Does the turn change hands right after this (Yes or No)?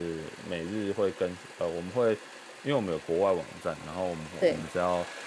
No